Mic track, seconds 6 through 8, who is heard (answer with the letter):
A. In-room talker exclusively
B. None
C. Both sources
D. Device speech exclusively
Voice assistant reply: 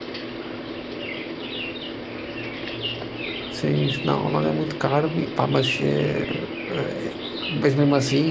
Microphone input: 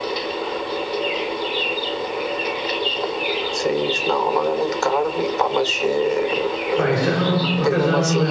C